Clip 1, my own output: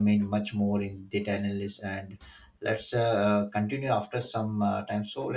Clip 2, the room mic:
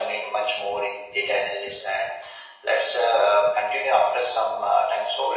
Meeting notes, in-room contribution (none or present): none